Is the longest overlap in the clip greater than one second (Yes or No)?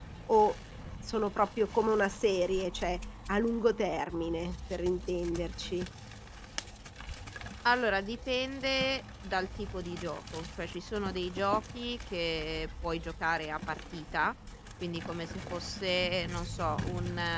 No